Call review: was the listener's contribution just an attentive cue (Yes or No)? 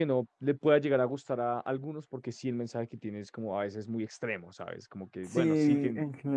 No